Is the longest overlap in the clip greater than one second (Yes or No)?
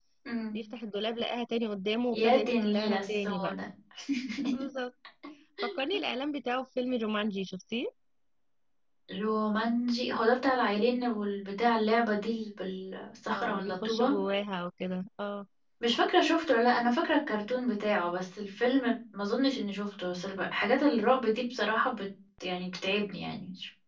Yes